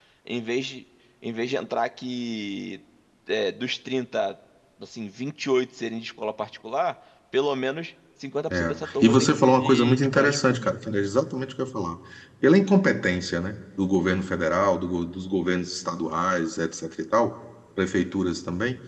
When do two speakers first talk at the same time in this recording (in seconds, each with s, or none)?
8.5 s